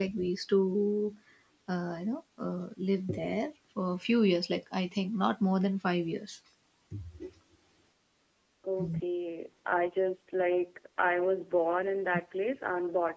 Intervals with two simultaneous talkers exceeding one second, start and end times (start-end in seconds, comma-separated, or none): none